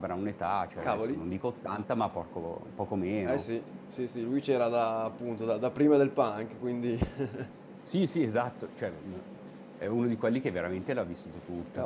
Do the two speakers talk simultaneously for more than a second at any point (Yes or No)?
No